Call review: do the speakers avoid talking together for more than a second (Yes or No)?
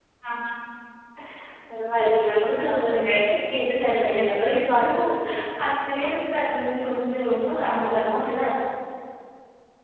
No